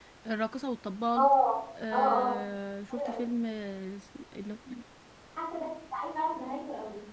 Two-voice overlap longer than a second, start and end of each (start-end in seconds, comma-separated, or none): none